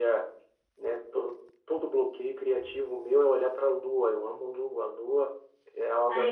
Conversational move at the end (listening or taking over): taking over